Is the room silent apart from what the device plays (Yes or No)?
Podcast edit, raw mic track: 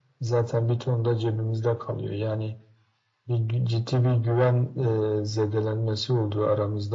Yes